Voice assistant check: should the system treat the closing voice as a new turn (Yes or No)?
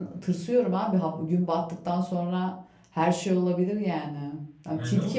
Yes